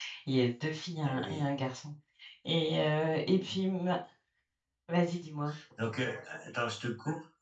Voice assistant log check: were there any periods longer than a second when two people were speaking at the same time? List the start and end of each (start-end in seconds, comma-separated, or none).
none